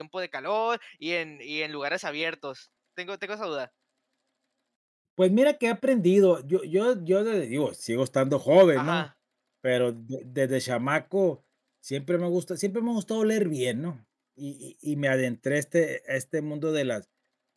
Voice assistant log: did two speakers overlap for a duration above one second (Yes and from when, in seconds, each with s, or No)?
No